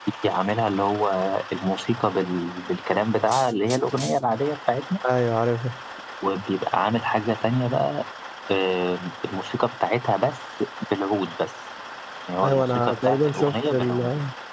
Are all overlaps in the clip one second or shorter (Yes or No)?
No